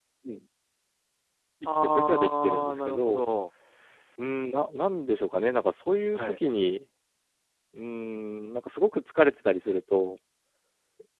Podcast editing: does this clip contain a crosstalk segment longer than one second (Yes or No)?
Yes